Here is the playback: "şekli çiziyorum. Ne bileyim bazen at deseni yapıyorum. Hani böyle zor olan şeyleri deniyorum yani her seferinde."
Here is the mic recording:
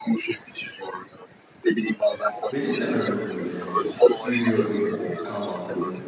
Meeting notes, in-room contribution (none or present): present